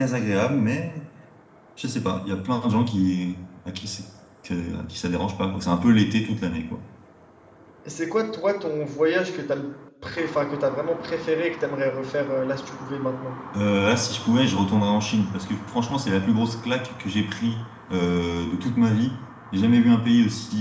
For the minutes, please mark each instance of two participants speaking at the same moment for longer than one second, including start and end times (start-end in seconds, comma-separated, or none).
none